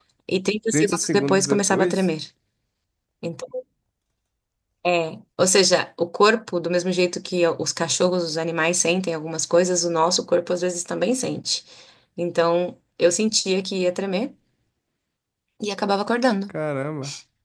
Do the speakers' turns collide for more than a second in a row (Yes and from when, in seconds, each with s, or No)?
Yes, from 0.7 s